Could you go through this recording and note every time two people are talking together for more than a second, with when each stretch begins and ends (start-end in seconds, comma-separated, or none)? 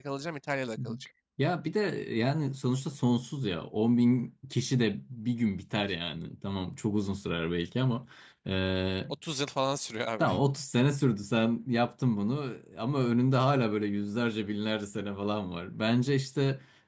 none